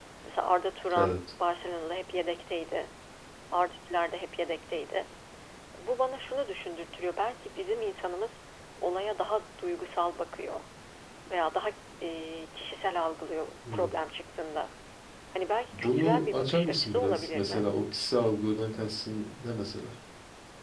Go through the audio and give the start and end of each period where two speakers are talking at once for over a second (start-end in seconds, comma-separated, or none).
15.7-17.7